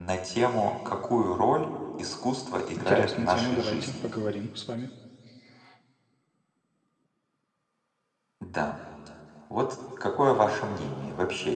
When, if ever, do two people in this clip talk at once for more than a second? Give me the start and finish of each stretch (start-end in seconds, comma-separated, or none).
2.8-4.0